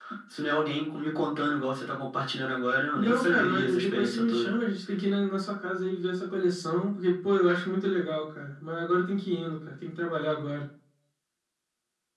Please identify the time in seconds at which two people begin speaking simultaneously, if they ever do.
3.0 s

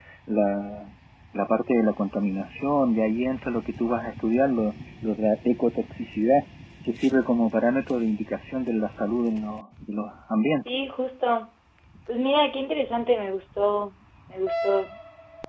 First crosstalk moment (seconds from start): none

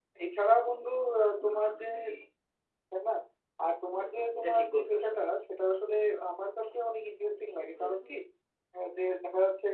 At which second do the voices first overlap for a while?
3.9 s

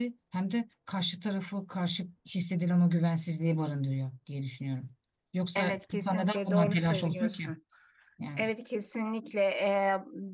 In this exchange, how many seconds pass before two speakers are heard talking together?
5.5 s

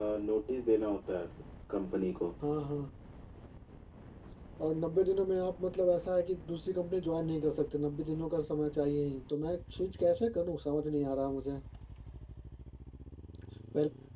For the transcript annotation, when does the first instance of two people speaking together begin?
none

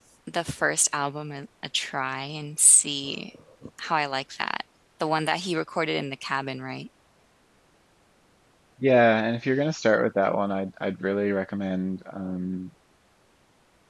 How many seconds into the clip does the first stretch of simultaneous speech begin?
none

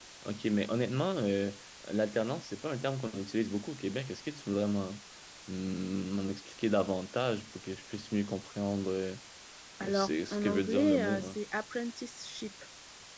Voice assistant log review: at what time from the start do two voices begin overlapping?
9.9 s

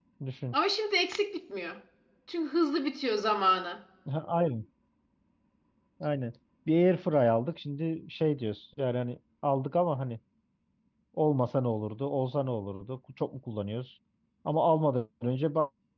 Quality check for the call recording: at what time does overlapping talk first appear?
none

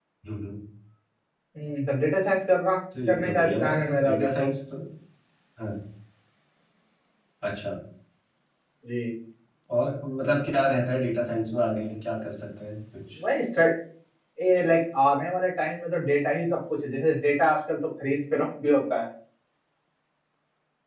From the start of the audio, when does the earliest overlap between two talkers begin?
2.9 s

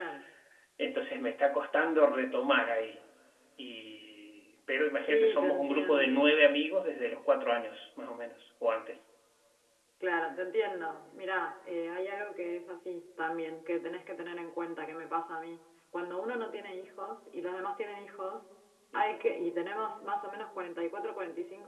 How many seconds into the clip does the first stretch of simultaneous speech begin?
5.0 s

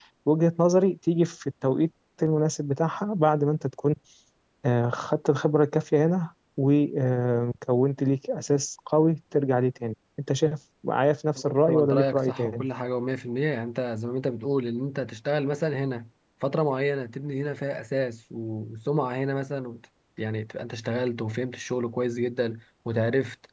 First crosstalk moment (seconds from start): 11.4 s

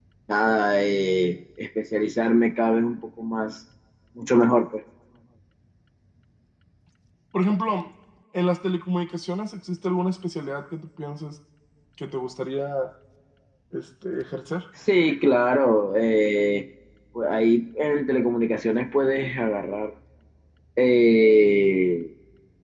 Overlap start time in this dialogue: none

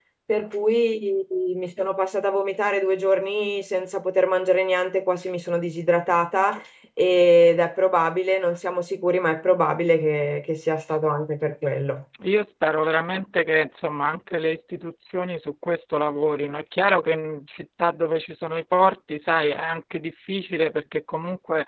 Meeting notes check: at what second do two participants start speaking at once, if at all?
none

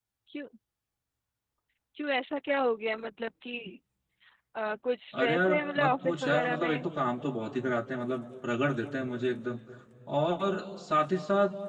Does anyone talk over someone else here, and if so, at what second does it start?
5.1 s

